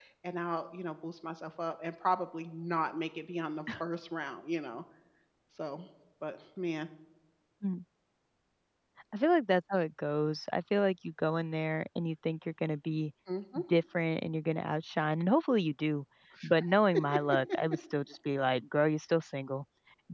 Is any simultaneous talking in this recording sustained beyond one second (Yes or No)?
No